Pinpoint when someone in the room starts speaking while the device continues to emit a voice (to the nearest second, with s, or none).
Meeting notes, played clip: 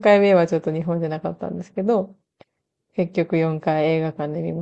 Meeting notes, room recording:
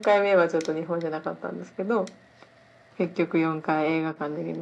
none